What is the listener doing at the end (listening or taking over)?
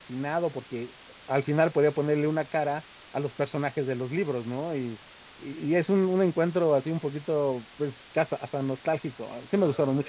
taking over